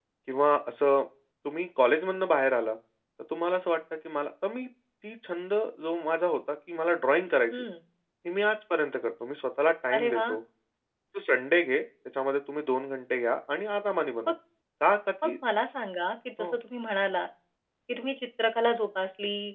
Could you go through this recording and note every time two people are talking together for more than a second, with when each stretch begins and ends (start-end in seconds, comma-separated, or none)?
none